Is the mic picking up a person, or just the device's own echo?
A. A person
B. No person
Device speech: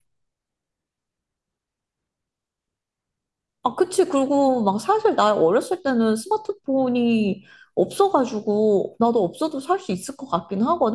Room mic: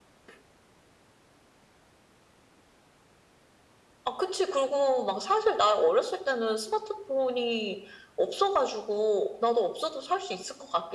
B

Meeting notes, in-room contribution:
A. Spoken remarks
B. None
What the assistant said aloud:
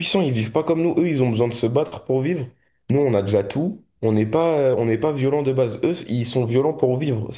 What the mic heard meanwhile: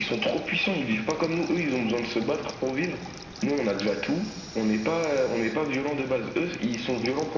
B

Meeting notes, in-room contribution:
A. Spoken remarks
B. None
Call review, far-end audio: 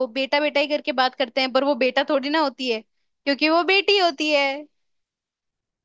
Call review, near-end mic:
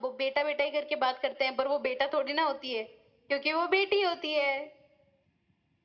B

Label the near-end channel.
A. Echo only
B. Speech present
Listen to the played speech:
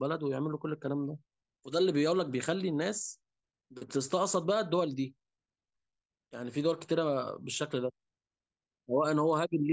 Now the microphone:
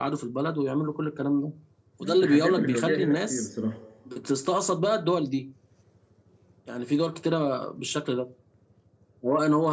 B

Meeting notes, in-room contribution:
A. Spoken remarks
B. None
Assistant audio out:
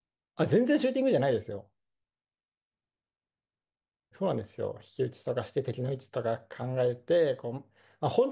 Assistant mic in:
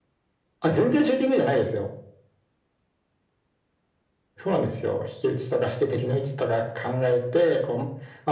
B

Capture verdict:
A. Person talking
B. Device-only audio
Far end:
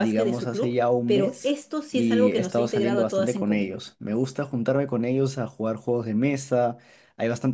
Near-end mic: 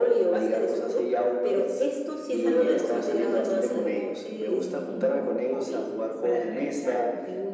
A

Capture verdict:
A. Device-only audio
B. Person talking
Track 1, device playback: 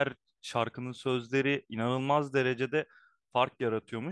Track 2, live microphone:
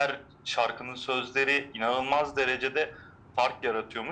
A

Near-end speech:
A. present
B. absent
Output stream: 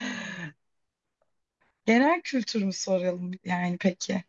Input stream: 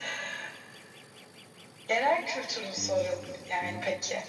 A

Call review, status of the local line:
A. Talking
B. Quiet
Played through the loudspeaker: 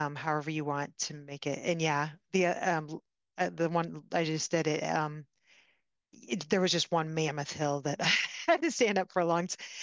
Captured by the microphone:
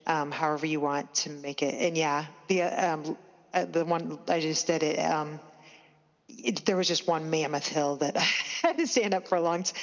B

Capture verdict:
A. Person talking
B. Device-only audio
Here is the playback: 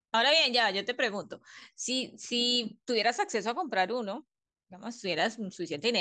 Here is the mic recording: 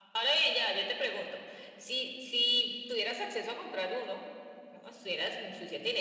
B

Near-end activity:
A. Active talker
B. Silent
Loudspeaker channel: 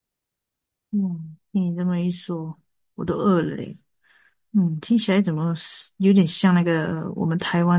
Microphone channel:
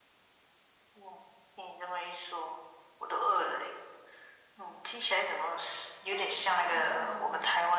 A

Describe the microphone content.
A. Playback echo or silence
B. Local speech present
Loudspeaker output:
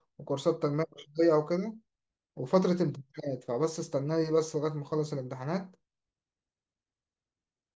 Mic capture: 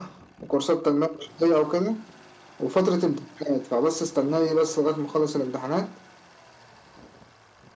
A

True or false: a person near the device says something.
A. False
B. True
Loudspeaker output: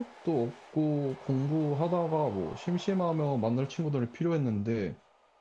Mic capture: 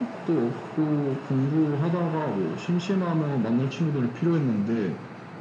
A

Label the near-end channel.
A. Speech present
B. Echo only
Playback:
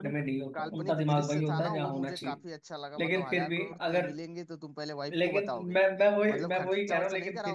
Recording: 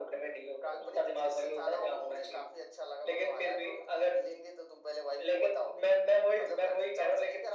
B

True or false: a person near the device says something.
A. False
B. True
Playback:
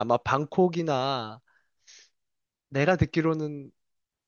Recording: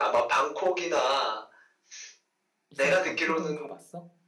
B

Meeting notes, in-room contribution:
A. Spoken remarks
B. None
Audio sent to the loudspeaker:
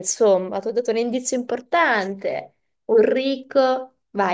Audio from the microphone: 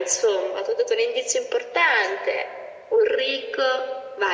B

